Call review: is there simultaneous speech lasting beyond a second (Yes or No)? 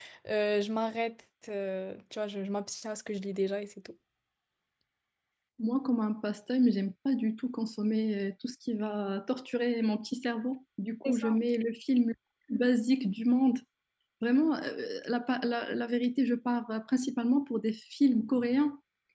No